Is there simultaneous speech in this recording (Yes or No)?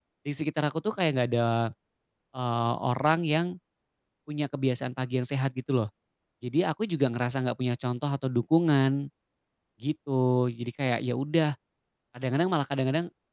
No